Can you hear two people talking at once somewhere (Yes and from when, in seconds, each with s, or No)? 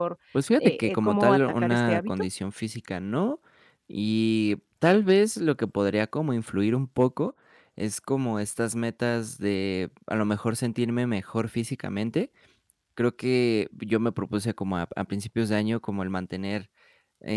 Yes, from 0.6 s